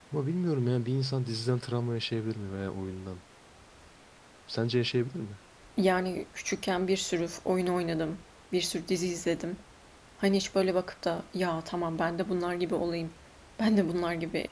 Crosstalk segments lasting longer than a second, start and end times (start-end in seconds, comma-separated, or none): none